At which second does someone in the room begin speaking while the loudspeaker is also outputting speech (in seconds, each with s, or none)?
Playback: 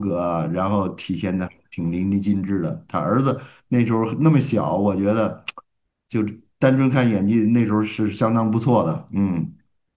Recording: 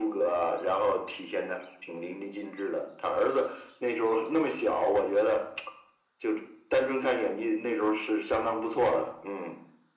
none